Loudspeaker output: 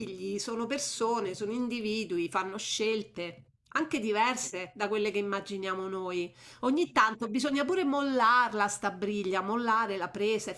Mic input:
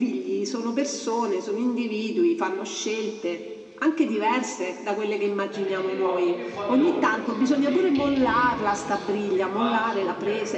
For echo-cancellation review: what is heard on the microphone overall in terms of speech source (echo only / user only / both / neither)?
both